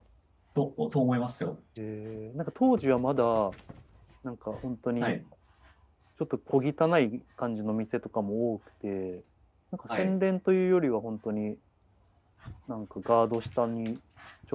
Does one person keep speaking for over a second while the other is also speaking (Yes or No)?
No